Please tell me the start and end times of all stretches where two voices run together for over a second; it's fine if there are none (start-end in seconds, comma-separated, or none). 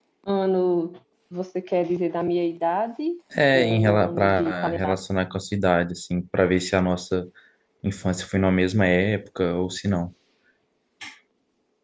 3.5-4.9